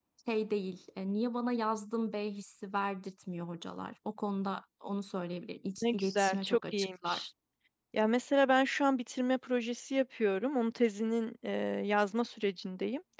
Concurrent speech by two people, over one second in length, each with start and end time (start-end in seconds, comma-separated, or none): 5.8-7.3